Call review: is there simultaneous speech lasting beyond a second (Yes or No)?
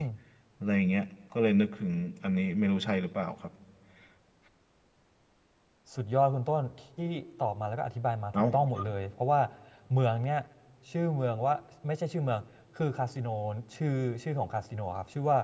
No